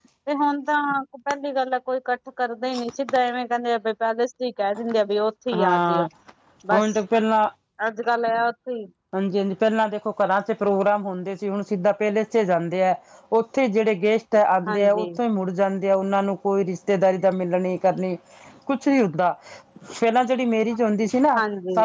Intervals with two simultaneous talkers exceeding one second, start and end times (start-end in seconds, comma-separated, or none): none